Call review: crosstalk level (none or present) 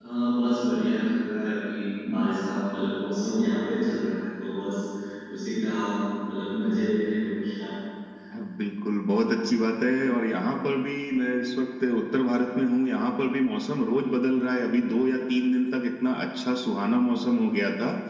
none